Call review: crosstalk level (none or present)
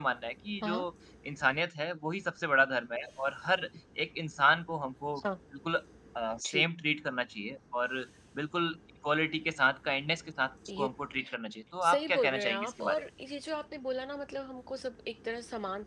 present